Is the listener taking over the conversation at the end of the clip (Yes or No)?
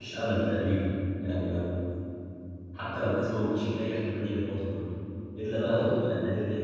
No